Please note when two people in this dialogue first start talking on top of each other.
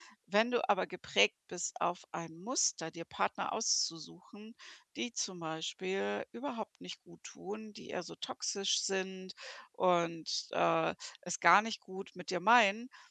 none

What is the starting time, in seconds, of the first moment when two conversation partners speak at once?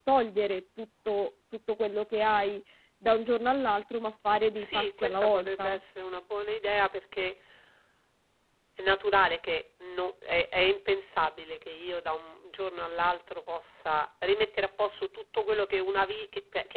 5 s

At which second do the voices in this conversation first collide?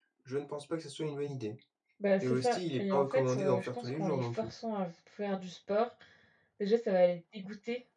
2 s

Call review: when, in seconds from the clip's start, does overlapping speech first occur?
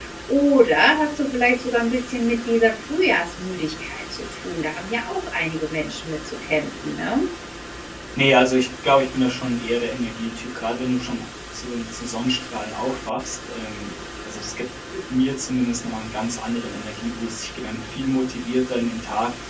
none

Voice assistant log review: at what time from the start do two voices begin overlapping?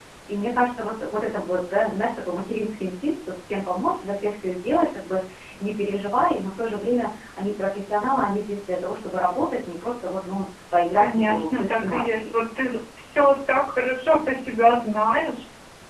11 s

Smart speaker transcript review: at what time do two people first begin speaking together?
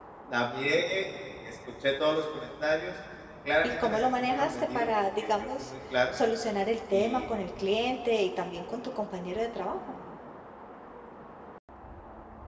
4 s

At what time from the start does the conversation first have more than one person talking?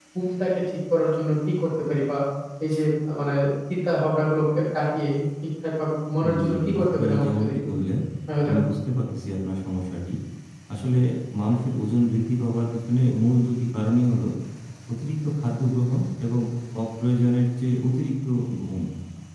6 s

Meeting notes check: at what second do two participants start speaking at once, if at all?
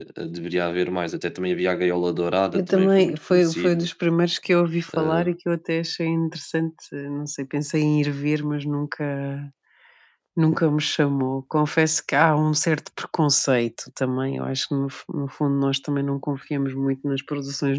3 s

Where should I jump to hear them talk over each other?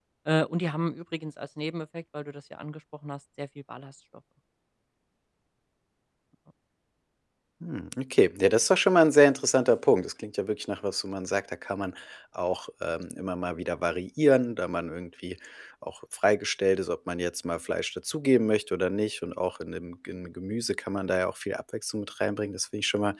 none

